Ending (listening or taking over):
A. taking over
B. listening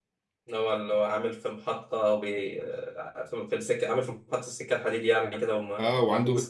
A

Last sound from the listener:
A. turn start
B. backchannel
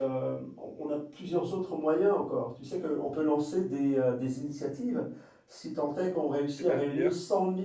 B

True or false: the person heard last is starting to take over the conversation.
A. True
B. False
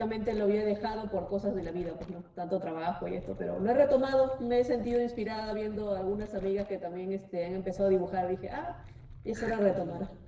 A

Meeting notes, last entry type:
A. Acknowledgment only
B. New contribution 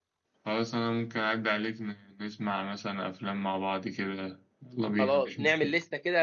B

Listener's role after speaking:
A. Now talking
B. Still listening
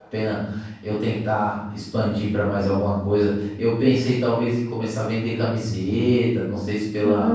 B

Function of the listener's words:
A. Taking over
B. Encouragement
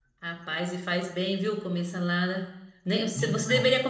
B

